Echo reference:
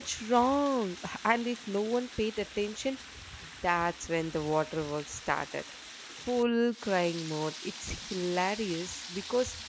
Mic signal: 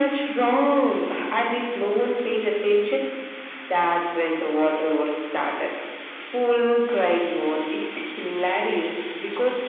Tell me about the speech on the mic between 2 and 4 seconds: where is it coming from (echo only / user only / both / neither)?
echo only